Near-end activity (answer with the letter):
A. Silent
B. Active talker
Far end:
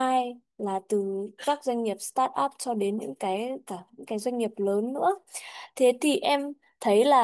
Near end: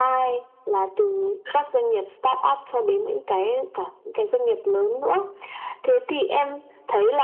A